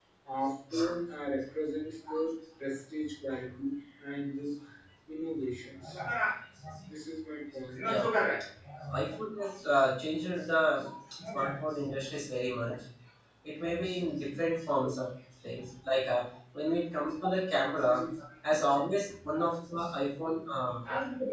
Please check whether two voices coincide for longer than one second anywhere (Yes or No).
No